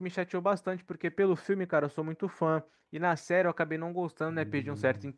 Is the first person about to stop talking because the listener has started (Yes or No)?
No